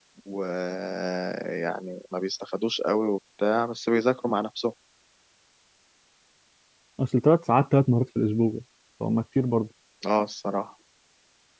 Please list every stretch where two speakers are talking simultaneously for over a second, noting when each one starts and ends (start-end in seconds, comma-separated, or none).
none